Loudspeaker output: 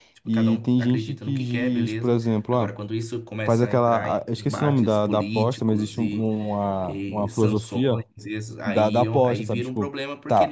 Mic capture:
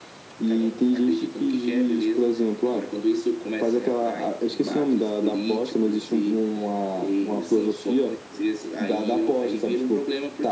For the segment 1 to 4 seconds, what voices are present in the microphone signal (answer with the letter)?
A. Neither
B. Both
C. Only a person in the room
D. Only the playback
D